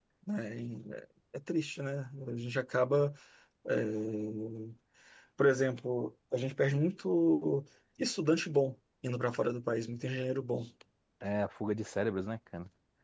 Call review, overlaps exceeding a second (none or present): none